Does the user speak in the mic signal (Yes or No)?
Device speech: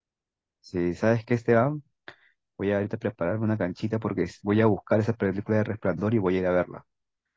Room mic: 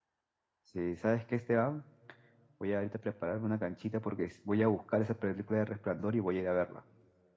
No